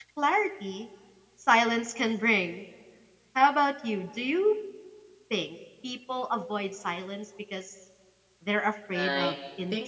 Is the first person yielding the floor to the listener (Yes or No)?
Yes